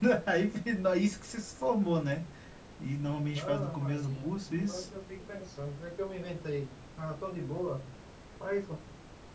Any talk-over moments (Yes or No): Yes